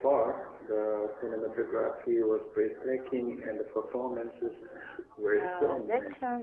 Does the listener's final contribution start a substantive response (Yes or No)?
Yes